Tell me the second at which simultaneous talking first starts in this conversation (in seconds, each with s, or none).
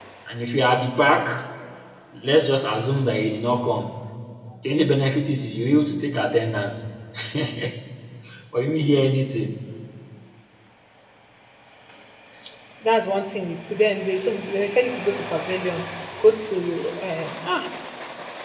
none